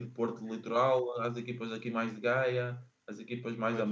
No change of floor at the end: Yes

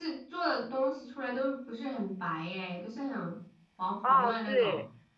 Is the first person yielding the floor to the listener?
Yes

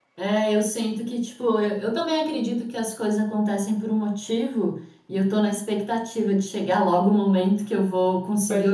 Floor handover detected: No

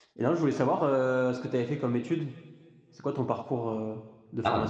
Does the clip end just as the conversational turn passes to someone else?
Yes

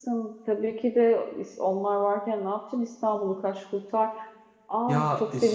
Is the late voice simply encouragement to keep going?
No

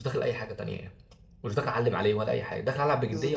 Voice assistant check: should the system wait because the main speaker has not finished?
No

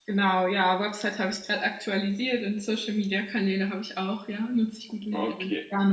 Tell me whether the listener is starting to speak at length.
Yes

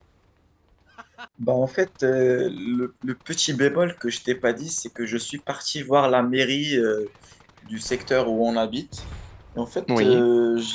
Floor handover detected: No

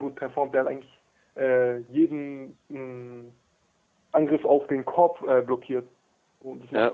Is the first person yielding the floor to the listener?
No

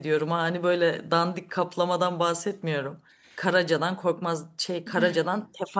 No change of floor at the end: Yes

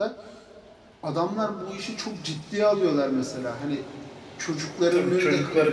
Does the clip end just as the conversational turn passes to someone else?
Yes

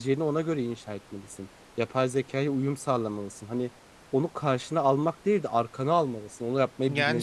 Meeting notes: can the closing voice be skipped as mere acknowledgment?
No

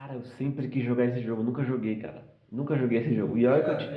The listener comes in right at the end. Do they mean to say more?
No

